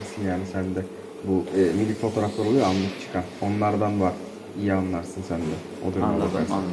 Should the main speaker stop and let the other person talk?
Yes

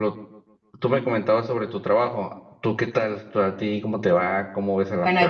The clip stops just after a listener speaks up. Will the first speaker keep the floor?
No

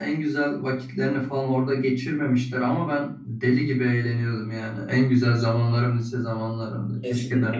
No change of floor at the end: No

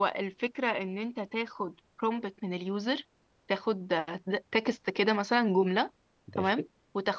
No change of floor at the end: Yes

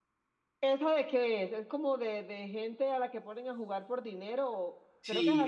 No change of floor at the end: No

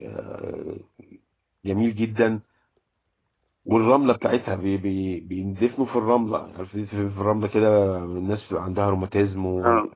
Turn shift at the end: No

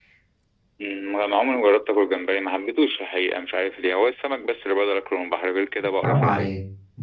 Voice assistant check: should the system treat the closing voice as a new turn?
Yes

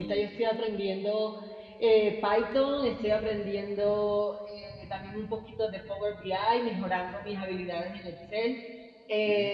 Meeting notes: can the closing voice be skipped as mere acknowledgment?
Yes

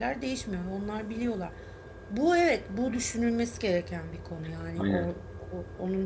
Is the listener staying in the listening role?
Yes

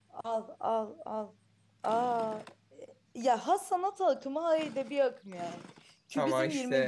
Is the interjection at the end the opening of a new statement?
No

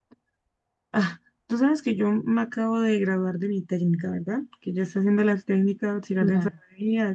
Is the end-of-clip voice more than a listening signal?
No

